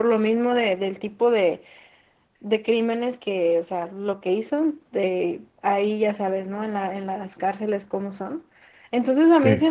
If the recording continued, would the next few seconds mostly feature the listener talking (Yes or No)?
No